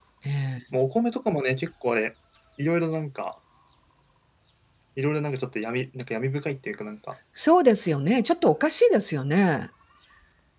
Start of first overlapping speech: none

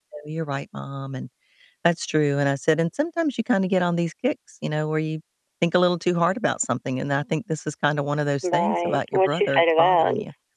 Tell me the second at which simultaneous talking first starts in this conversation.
8.4 s

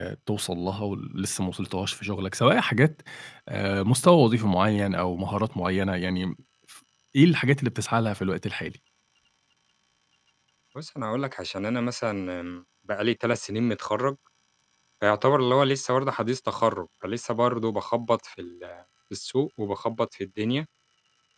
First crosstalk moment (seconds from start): none

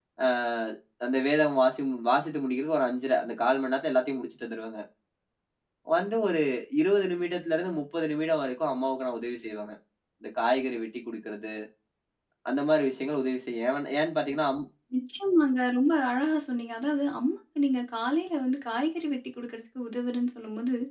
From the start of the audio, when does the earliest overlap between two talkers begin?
none

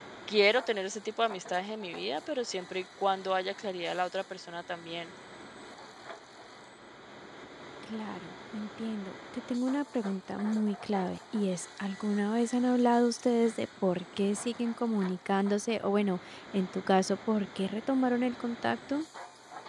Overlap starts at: none

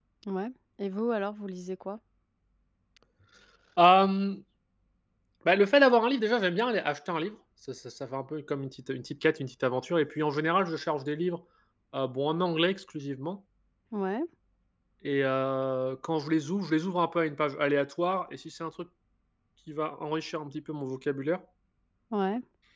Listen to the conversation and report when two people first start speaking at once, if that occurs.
none

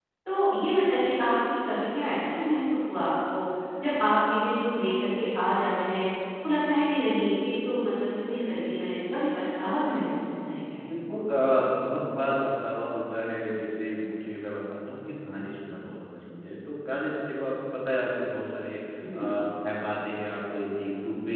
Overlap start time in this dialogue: none

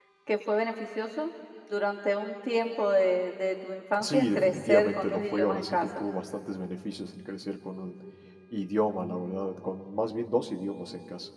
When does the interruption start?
4.0 s

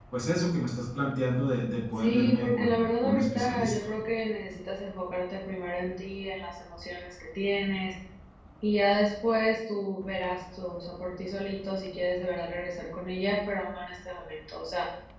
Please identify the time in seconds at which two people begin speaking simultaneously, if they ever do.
2.0 s

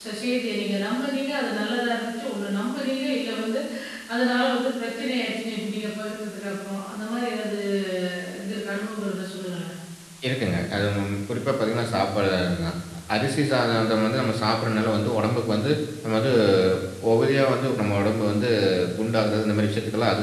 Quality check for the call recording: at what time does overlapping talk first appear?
none

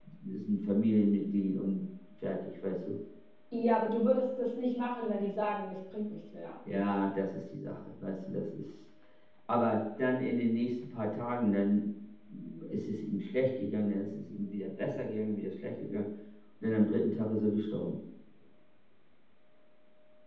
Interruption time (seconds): none

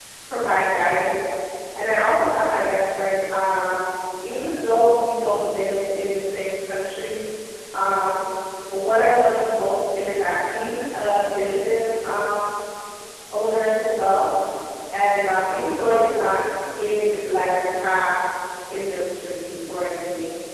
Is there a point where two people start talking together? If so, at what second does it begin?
none

